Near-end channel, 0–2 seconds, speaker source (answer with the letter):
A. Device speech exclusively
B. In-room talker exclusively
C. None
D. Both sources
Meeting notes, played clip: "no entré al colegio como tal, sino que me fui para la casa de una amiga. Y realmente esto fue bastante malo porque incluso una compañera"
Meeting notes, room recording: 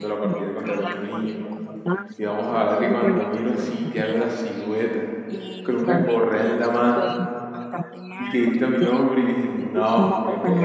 D